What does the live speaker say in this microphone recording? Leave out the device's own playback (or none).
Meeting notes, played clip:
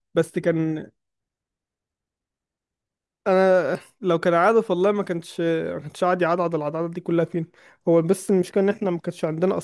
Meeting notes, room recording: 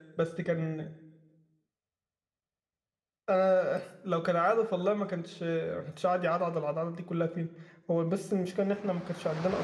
none